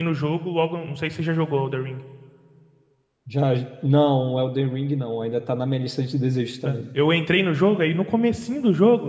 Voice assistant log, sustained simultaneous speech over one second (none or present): none